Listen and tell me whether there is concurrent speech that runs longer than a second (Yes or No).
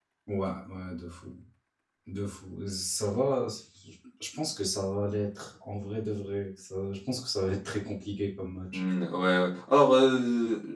No